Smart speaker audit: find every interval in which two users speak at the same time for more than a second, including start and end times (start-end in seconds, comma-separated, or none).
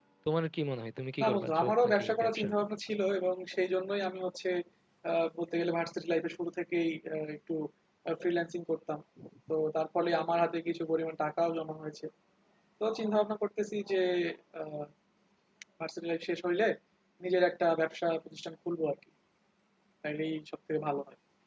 1.2-2.5